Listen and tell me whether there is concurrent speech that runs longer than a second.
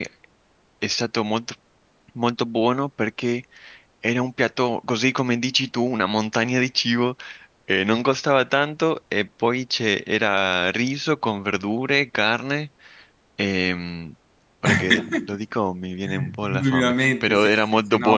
Yes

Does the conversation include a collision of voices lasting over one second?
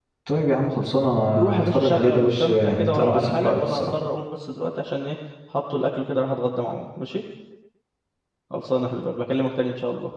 Yes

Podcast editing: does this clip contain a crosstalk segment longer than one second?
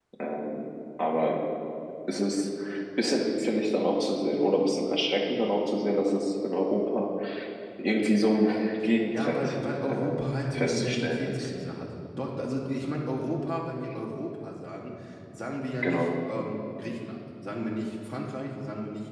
Yes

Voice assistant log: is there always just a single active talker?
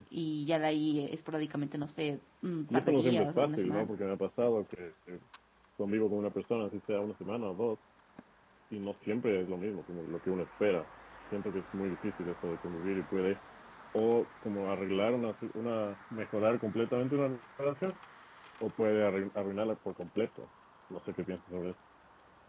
No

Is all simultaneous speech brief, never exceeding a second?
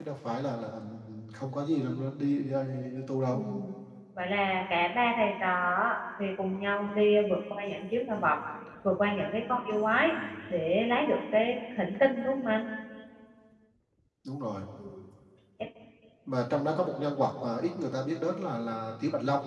Yes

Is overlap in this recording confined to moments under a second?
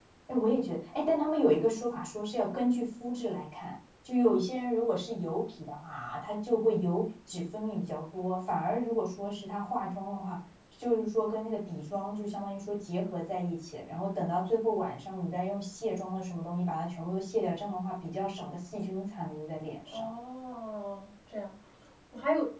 Yes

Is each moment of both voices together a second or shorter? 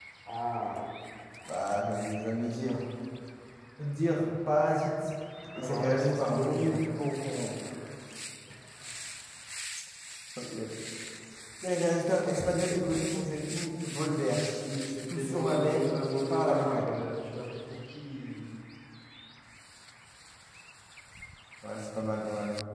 No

